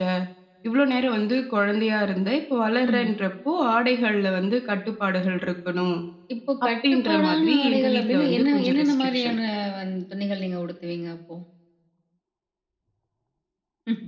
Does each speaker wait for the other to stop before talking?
No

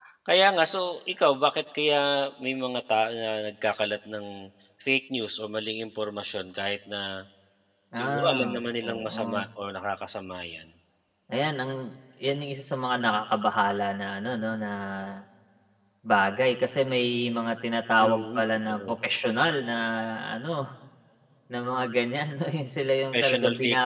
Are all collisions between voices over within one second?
No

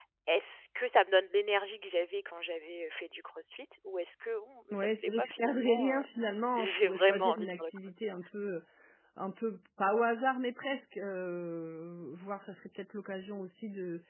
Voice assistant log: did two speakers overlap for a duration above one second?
Yes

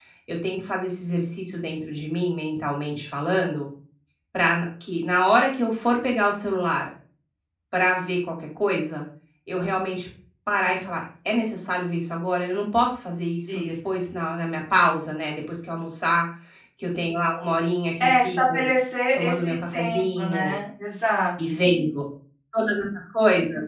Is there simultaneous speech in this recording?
Yes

